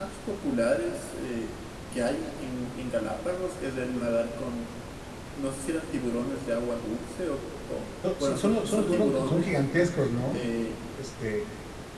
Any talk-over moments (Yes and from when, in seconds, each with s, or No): Yes, from 8.0 s